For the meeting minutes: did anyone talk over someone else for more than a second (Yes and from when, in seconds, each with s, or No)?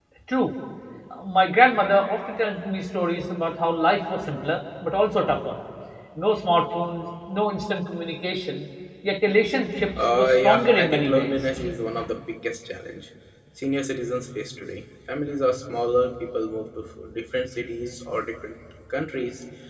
Yes, from 10.0 s